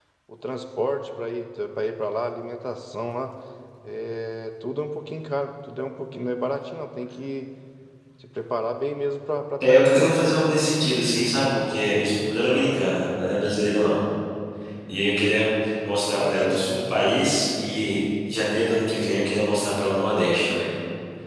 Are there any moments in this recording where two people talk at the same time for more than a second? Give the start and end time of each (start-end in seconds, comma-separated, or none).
none